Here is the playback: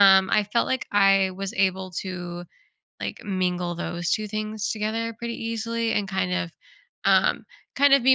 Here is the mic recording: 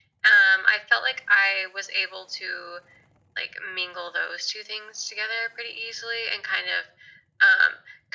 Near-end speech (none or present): none